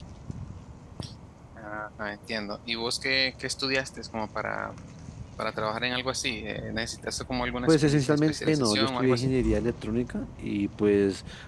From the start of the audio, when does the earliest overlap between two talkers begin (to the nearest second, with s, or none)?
8 s